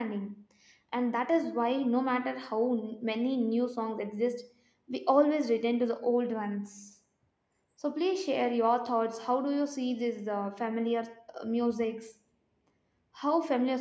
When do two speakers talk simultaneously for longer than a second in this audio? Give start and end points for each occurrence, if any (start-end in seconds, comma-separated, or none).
none